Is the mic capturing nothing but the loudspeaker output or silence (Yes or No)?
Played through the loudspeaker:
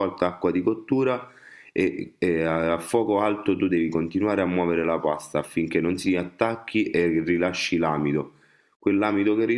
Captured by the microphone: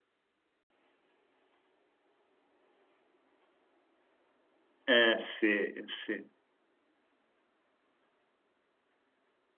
No